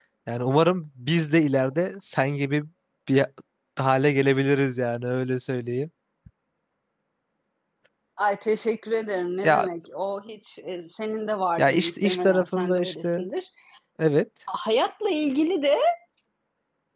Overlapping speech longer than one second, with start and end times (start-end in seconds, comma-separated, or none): 11.6-13.2